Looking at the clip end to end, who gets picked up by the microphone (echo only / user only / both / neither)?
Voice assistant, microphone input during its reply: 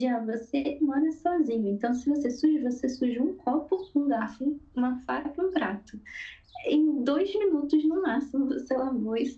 echo only